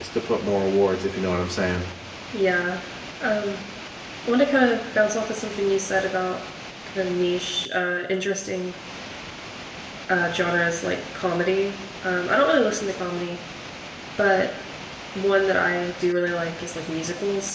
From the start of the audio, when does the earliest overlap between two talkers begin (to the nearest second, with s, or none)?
none